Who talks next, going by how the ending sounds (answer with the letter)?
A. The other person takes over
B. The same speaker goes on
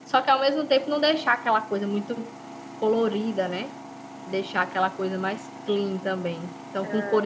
B